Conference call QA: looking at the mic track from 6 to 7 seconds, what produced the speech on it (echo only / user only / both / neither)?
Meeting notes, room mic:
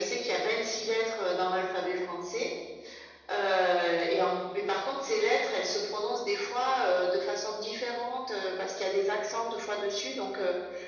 echo only